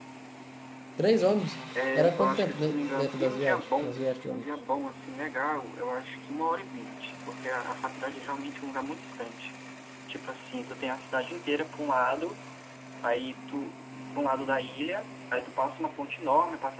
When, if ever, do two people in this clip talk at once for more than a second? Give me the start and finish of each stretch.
1.9-4.5

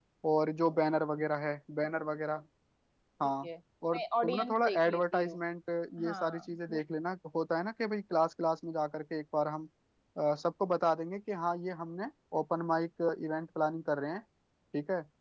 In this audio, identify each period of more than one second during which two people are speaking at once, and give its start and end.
3.9-5.4

